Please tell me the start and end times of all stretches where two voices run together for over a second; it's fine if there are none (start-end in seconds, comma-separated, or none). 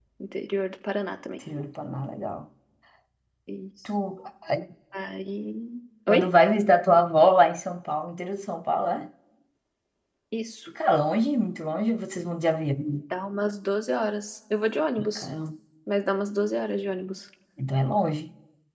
none